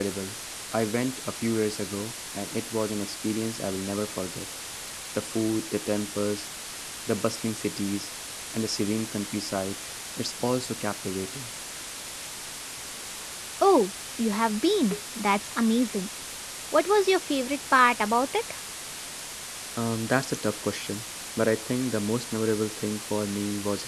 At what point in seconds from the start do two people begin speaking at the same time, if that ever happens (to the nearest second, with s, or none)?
none